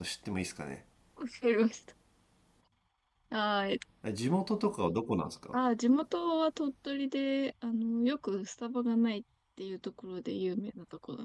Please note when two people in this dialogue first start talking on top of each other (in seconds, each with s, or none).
none